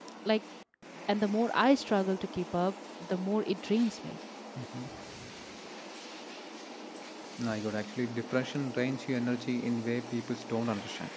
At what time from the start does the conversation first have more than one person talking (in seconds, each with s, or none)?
none